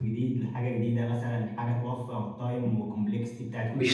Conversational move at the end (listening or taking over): taking over